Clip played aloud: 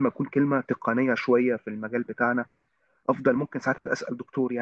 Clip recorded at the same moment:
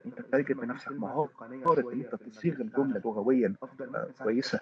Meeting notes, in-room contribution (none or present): present